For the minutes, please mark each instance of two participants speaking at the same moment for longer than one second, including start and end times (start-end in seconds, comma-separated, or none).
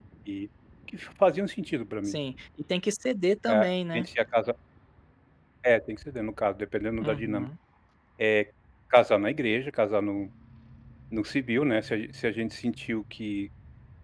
none